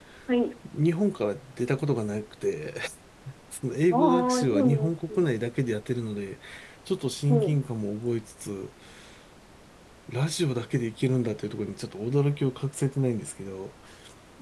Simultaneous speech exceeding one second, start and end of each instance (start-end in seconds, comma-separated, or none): 3.9-5.3